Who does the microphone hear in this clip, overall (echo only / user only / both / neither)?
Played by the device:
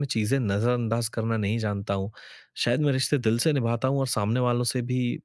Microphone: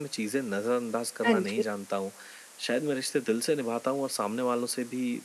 both